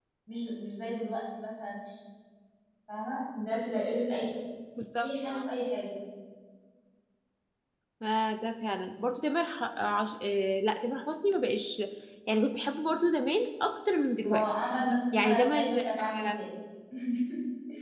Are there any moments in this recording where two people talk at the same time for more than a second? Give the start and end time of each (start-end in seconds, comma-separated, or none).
15.1-16.4